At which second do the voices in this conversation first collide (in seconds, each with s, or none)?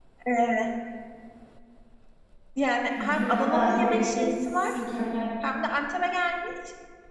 3.0 s